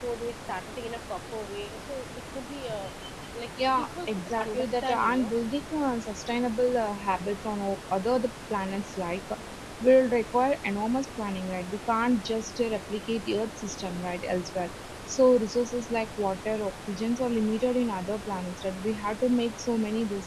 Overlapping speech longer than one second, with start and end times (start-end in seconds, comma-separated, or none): 3.8-5.3